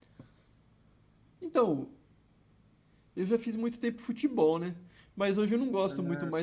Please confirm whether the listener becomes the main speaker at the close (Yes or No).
No